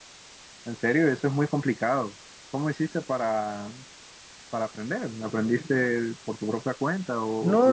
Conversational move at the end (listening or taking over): taking over